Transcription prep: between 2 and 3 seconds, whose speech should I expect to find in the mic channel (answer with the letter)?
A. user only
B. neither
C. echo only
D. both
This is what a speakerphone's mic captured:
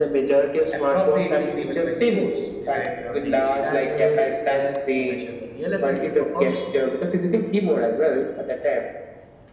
D